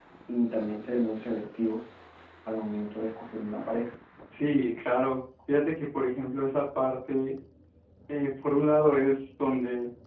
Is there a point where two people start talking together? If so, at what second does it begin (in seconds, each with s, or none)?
none